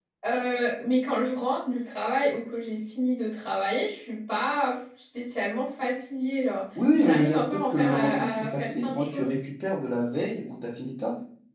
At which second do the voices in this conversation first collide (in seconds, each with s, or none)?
6.8 s